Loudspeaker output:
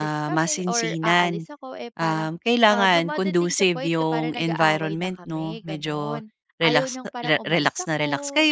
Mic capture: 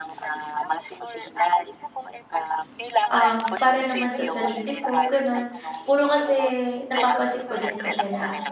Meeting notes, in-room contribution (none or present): present